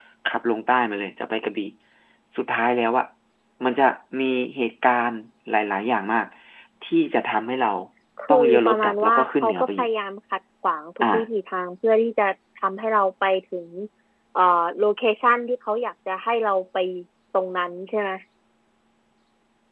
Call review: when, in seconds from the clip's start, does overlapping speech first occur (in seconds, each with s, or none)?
8.3 s